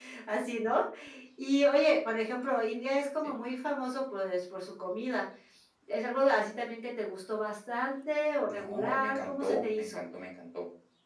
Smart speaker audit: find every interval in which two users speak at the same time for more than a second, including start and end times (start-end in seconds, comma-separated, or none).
8.5-10.0